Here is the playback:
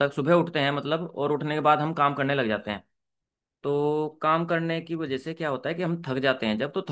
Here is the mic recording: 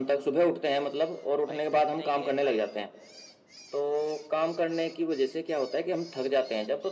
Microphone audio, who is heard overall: both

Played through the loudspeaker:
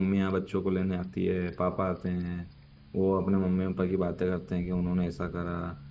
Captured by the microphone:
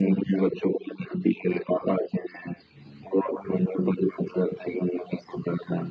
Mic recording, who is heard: echo only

